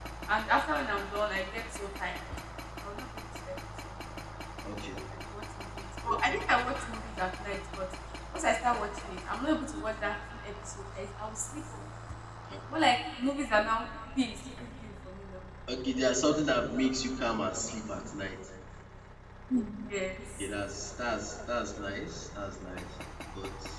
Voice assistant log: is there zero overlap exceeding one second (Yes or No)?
Yes